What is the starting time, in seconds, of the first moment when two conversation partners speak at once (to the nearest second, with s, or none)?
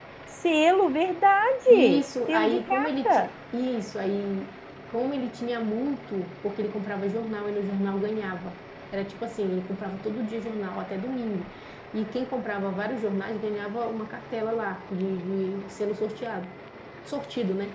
2 s